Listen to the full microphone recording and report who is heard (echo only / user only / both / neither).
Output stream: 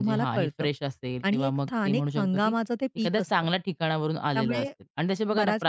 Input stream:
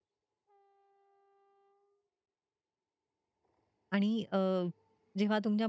user only